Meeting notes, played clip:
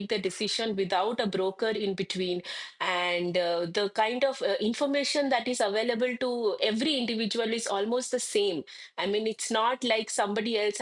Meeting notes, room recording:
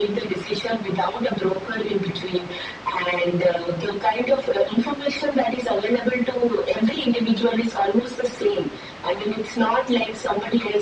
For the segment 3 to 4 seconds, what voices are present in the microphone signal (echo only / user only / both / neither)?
echo only